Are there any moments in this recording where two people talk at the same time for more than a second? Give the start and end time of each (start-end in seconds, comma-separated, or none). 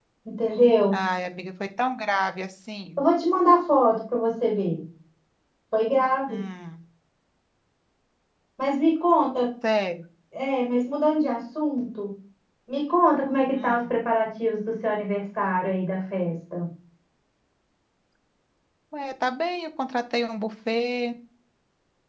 none